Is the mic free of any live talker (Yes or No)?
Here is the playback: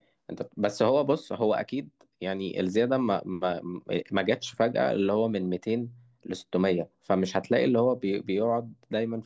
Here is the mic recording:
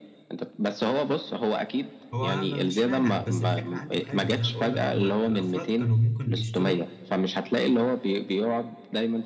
No